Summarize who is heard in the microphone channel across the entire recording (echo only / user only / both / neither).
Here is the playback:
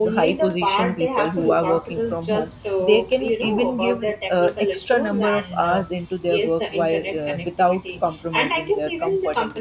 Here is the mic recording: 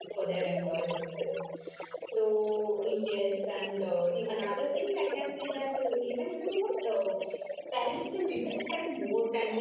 both